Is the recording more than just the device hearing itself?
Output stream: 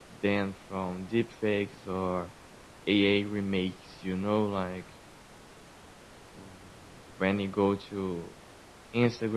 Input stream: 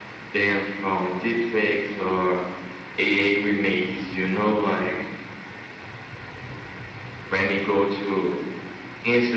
No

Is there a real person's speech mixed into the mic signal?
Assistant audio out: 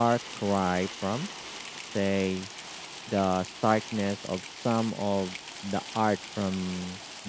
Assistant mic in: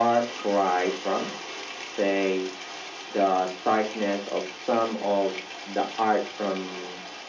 No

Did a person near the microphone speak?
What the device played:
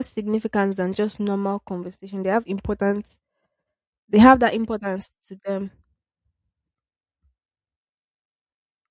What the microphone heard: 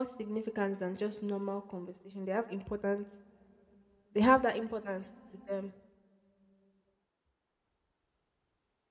No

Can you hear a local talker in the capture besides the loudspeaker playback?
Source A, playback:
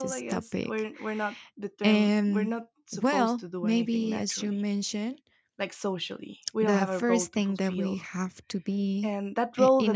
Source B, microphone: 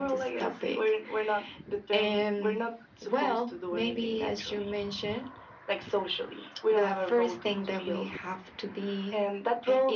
No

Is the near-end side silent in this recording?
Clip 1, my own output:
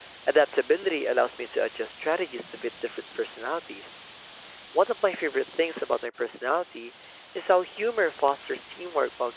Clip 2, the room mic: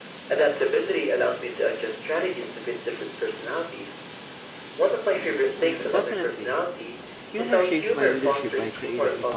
No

